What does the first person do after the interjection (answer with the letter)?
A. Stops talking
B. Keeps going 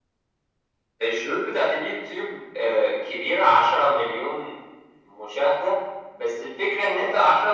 B